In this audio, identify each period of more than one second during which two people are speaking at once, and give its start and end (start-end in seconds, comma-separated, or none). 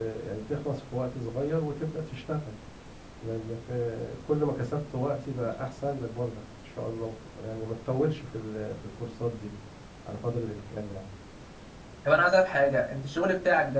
none